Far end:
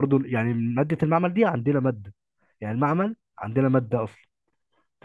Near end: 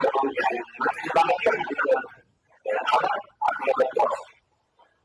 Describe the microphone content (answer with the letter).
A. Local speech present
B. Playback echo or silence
B